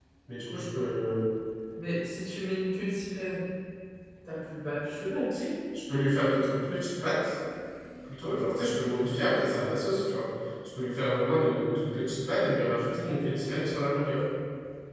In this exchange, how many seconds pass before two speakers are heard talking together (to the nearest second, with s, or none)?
none